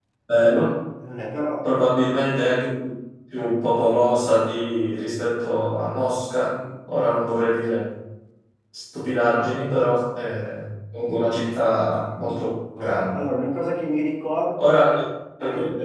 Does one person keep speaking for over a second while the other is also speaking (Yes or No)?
No